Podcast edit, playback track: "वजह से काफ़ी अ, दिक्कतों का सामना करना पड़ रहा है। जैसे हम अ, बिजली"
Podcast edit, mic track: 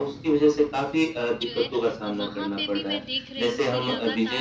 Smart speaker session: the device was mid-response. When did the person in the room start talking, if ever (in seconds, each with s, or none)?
1.3 s